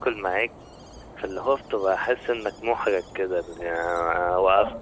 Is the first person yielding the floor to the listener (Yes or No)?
No